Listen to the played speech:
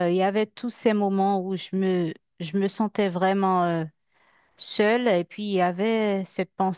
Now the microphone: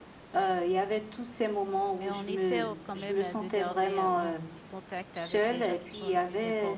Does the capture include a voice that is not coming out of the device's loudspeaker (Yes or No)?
Yes